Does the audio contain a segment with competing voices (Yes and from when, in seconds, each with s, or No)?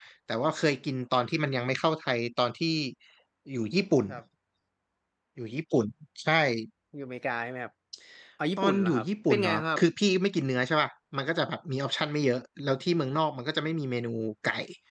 Yes, from 8.6 s